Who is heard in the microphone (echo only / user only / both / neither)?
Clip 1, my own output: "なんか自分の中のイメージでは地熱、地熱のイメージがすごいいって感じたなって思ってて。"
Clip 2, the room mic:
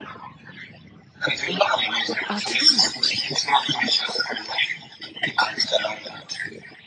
both